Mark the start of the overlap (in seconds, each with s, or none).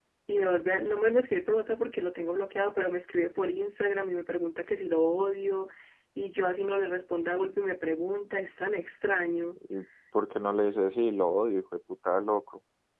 none